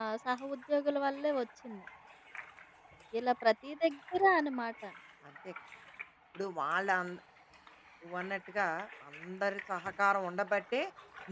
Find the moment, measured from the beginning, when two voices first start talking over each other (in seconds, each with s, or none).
none